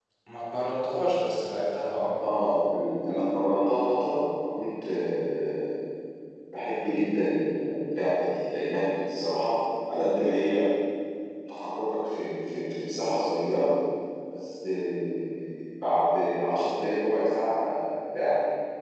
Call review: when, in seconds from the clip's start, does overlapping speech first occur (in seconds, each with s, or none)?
none